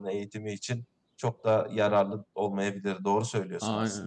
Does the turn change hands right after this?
Yes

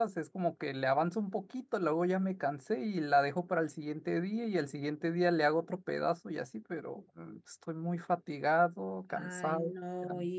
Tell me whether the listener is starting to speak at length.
Yes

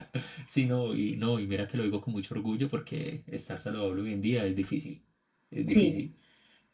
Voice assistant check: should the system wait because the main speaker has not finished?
Yes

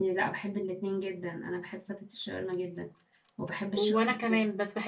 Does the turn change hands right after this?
Yes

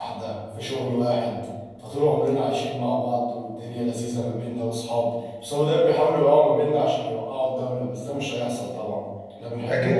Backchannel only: No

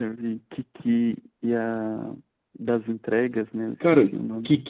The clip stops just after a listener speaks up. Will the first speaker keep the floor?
No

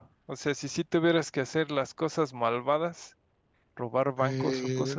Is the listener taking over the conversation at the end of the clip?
Yes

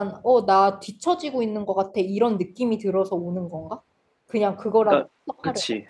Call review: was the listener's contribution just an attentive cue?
No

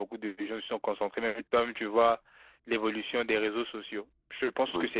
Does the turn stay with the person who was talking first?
Yes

